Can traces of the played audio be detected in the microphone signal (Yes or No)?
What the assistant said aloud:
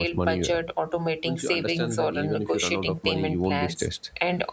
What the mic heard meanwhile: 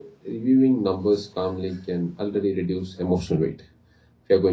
No